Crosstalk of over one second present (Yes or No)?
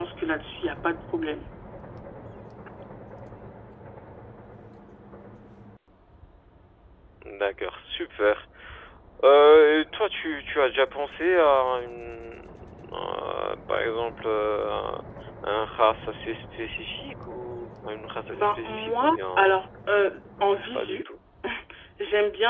Yes